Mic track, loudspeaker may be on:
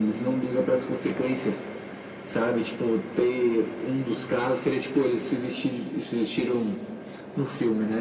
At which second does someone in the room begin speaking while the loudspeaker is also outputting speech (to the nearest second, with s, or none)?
none